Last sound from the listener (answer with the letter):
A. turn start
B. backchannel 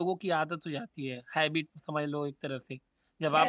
A